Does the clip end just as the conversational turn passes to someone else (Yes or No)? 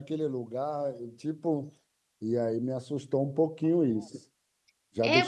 Yes